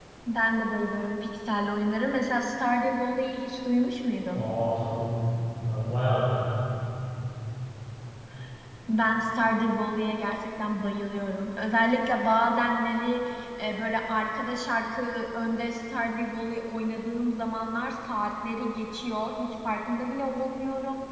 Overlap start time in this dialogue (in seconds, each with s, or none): none